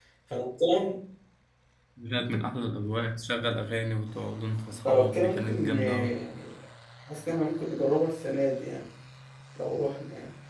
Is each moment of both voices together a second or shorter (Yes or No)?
No